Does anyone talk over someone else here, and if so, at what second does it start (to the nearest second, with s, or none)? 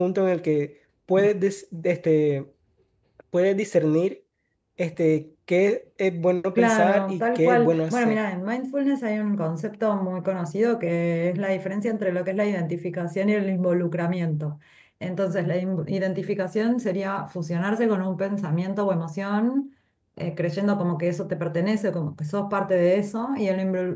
7 s